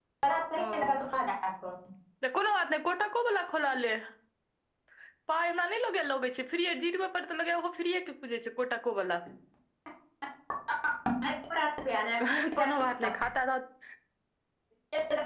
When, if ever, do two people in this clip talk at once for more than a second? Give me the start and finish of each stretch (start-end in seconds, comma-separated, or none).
none